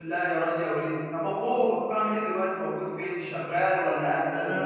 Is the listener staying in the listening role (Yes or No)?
No